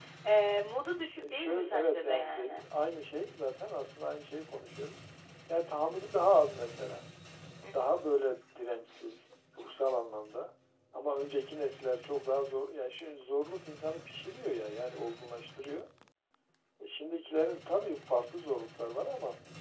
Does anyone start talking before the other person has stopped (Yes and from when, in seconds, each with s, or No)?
Yes, from 1.2 s